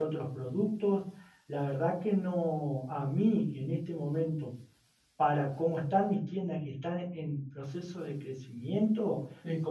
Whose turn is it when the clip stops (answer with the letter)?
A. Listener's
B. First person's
B